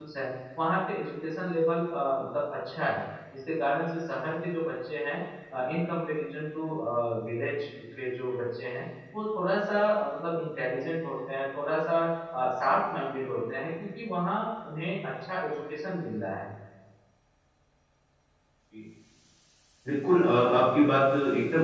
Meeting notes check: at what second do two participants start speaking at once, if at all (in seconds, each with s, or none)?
none